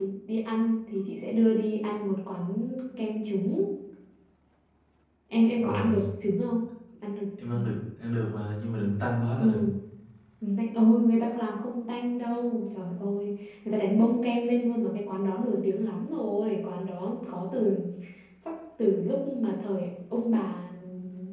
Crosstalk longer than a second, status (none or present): none